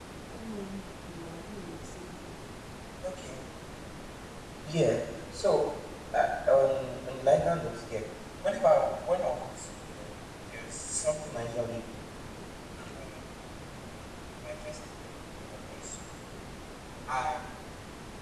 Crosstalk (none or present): none